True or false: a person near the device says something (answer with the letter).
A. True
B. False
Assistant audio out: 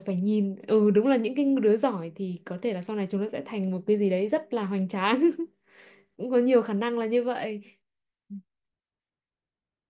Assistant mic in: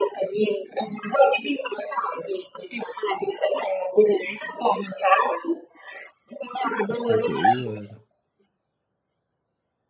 A